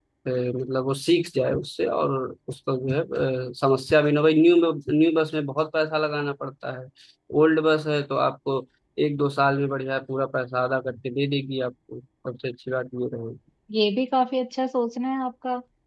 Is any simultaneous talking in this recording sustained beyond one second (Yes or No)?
No